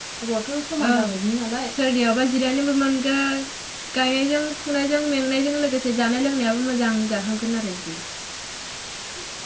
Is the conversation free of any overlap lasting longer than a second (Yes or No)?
Yes